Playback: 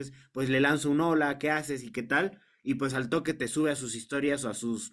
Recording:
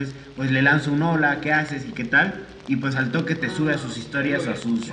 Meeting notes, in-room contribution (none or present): present